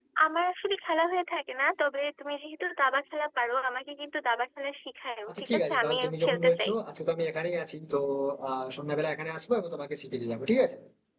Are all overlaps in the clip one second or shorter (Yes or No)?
No